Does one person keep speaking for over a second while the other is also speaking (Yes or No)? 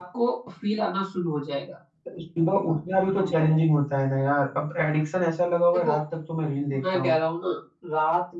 No